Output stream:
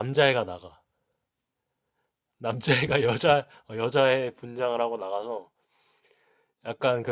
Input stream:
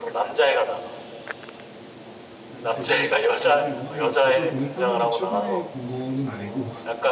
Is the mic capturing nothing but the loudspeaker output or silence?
No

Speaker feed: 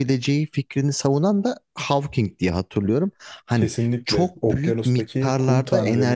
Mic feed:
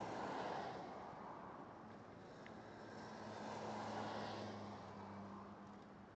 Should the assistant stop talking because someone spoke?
No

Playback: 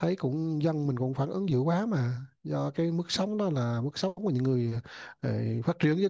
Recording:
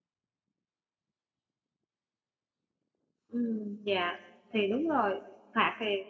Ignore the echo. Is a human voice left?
Yes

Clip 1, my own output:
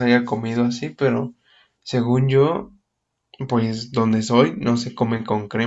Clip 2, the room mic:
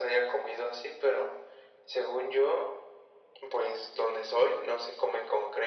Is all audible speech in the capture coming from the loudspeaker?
Yes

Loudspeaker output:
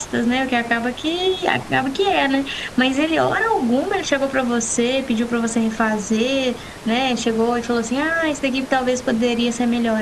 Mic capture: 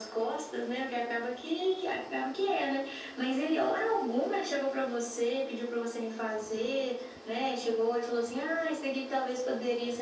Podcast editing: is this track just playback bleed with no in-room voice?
Yes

